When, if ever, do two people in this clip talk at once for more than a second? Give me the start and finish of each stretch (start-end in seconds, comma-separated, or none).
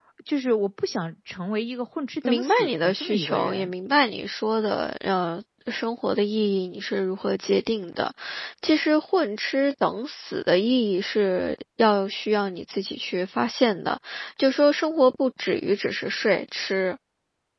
2.2-3.7